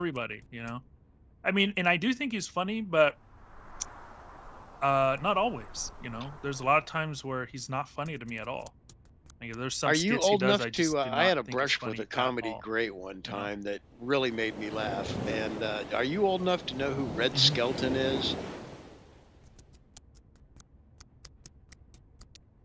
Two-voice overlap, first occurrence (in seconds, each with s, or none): 9.8 s